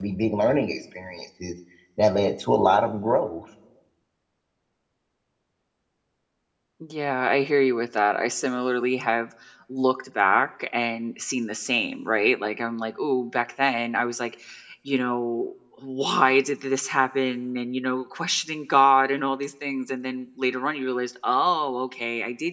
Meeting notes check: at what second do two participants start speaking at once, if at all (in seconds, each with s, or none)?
none